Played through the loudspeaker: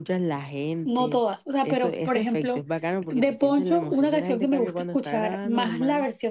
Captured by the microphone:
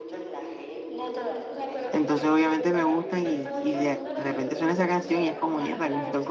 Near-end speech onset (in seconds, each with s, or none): 1.9 s